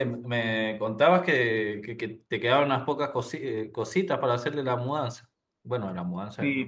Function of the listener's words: taking over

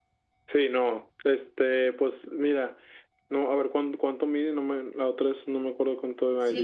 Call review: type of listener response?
taking over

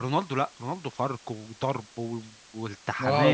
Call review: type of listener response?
taking over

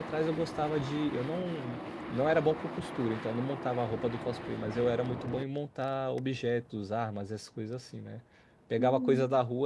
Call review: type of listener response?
listening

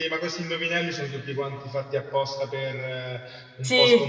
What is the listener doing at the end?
listening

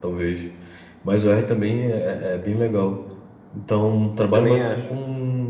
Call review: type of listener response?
listening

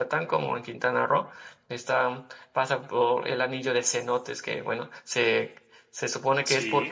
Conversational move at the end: listening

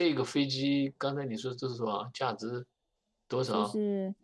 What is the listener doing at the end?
taking over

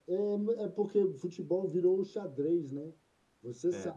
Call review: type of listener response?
listening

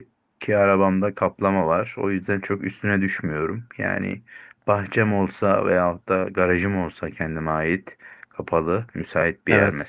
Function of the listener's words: listening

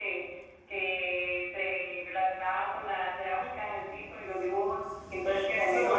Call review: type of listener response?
listening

